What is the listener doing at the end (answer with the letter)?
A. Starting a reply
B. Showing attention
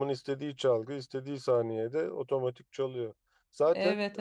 B